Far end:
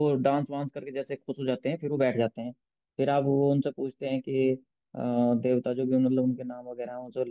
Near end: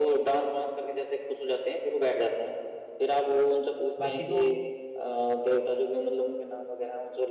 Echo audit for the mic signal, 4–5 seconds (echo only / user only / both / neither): both